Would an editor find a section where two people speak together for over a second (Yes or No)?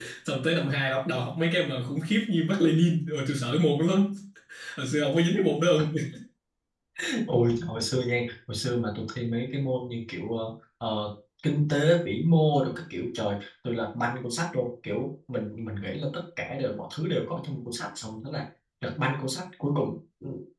No